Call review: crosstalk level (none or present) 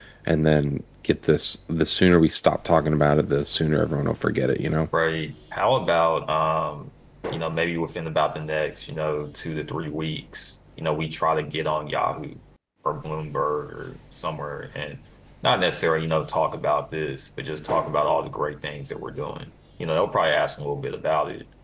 none